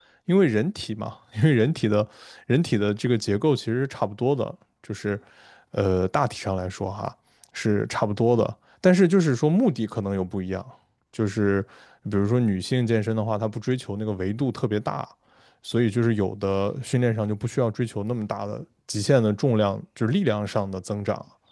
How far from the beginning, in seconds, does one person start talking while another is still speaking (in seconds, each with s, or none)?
none